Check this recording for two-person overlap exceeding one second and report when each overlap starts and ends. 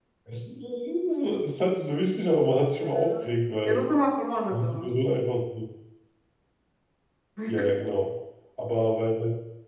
none

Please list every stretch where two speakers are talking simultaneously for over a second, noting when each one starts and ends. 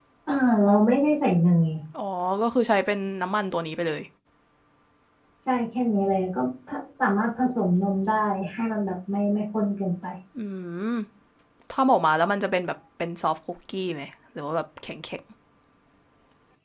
none

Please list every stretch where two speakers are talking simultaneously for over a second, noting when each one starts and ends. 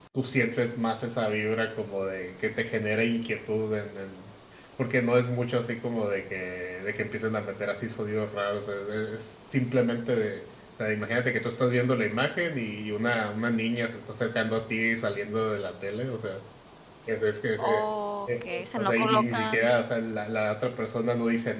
18.3-19.6

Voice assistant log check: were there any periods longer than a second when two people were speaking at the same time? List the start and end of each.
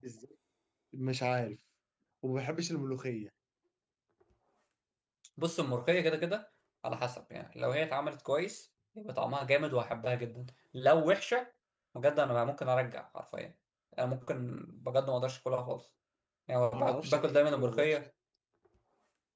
16.7-18.0

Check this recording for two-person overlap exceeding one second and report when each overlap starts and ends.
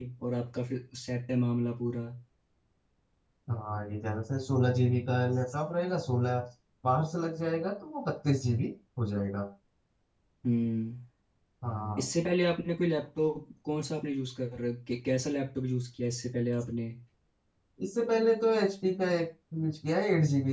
none

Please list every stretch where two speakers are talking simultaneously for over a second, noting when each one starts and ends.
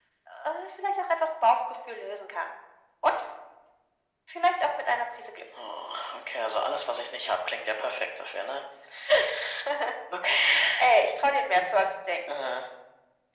none

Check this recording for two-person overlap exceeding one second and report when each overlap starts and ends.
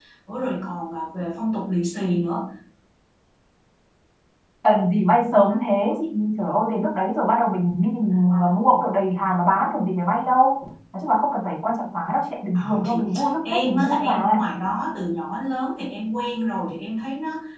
12.6-14.4

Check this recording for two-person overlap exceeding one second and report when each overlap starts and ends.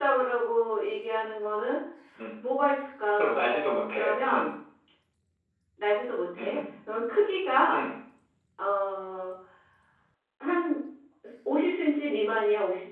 3.1-4.5

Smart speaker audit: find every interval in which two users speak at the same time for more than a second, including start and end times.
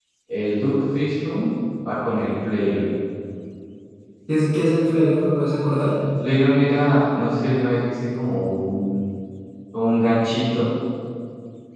none

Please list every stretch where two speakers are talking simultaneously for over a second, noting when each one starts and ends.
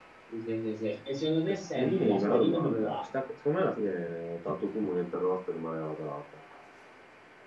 1.5-3.0

